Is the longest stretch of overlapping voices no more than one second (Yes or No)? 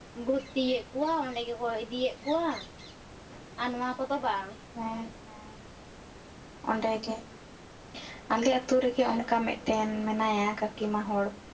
Yes